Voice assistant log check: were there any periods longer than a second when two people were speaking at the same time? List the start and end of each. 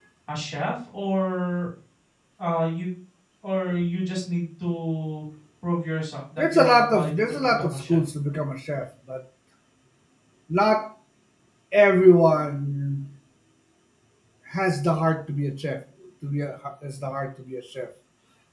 6.4-8.0

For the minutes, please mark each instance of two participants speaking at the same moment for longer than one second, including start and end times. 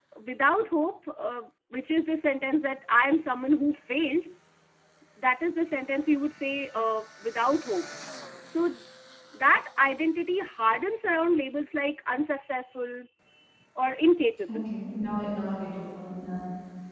none

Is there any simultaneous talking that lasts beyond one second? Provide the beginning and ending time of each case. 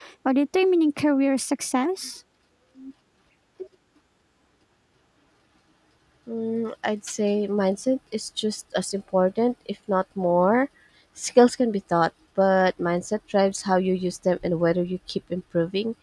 none

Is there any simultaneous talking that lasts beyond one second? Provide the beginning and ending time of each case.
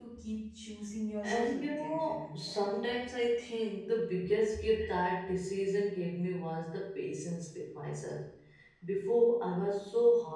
1.2-2.7

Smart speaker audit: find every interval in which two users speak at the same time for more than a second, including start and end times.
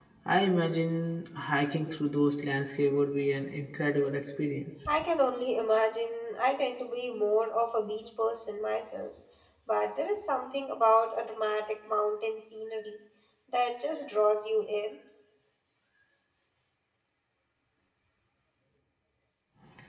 none

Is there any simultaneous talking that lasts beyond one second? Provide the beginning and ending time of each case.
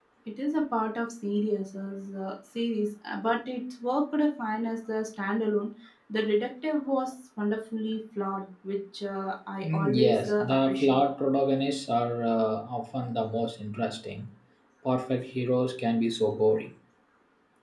9.6-11.0

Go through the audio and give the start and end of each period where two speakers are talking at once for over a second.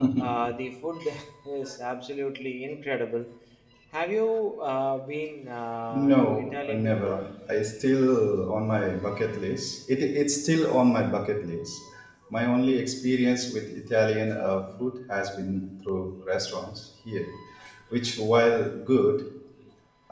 5.9-7.3

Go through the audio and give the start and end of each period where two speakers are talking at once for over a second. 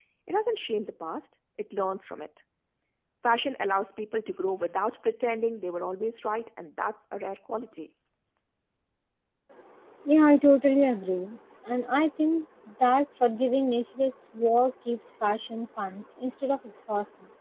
none

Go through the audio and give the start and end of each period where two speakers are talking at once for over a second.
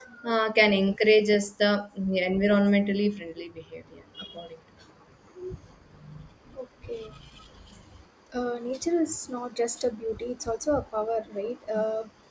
none

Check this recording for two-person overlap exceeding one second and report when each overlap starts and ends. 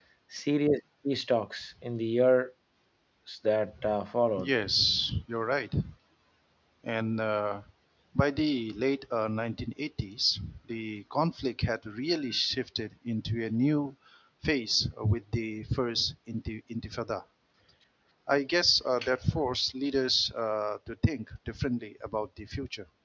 none

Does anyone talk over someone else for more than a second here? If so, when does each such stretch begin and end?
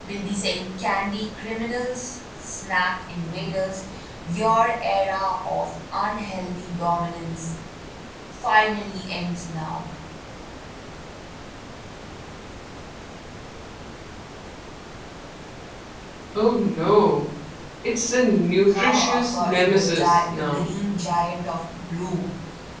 18.7-20.7

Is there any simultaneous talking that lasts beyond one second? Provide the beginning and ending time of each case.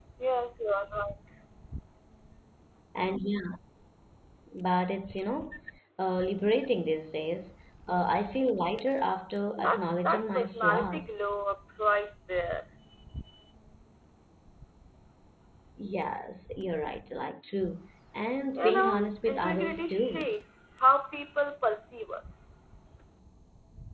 9.6-11.2, 18.6-20.3

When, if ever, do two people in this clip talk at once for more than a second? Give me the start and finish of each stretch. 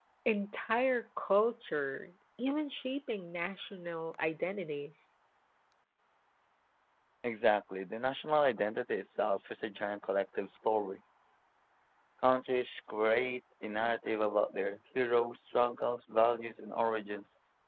none

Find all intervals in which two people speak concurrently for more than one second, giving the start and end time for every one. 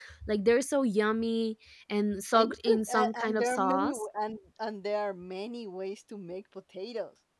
2.3-4.0

